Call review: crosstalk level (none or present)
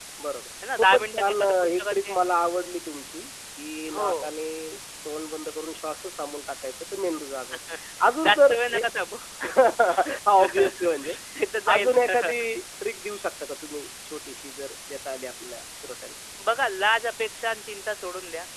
present